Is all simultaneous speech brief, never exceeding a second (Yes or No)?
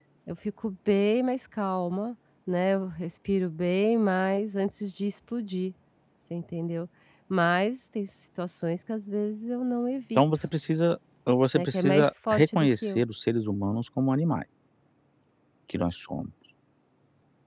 No